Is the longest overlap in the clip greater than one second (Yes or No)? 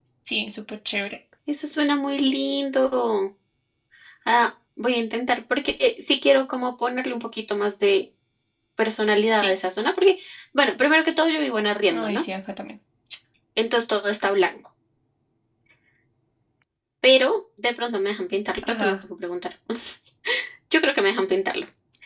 No